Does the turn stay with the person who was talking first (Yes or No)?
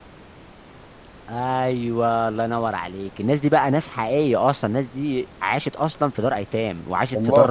Yes